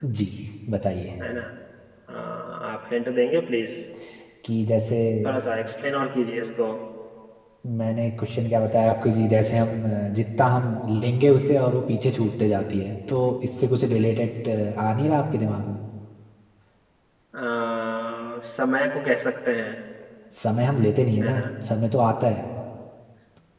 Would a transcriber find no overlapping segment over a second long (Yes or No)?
Yes